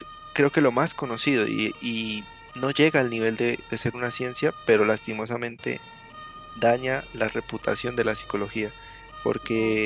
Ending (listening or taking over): listening